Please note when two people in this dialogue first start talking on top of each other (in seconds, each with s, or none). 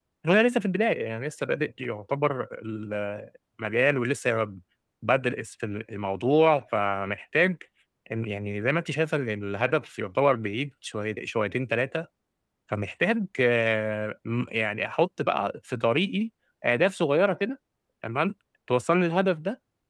none